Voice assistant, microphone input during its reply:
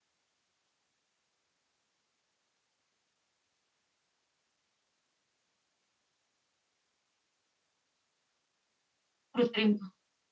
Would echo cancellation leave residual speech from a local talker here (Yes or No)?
Yes